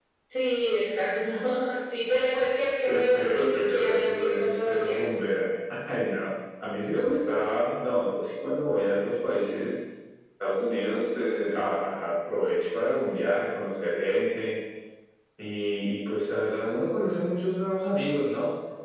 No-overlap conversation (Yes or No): No